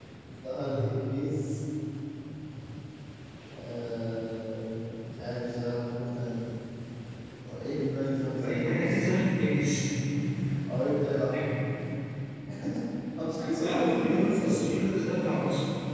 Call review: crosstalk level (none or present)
present